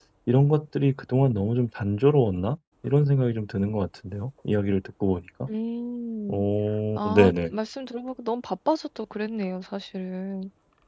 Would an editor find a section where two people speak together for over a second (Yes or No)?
No